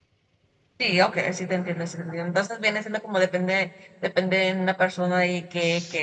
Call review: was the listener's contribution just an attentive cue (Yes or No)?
Yes